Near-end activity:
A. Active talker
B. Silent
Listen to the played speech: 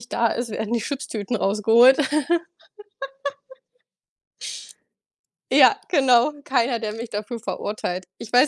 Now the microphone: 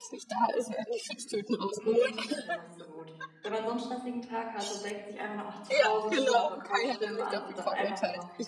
A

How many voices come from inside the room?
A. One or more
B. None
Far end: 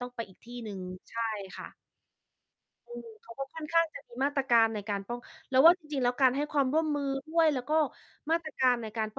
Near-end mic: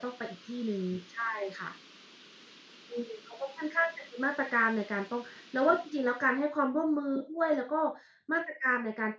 B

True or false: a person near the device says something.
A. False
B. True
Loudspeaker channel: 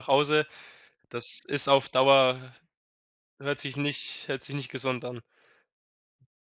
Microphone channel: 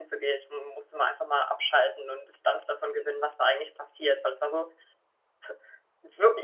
B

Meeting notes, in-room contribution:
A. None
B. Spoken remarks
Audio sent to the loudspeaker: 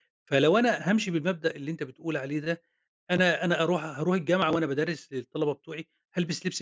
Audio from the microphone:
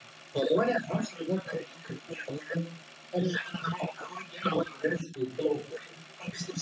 A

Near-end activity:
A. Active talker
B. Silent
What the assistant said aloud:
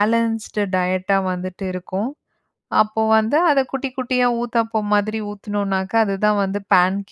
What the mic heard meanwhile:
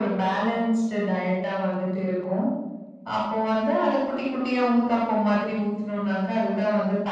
B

